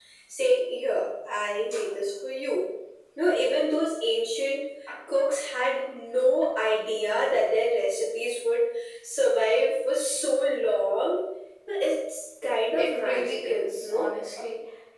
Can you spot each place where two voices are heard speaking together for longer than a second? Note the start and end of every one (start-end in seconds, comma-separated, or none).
12.8-14.1